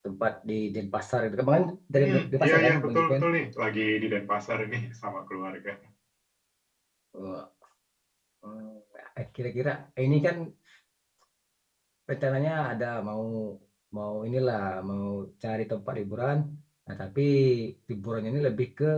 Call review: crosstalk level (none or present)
present